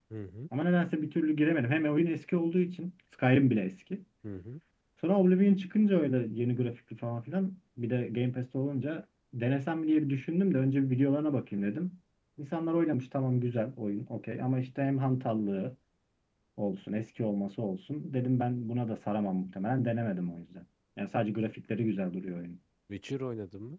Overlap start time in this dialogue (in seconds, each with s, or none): none